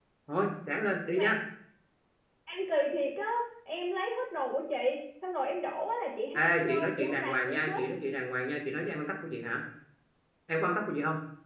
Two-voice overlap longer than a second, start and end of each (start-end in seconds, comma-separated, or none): 6.3-7.8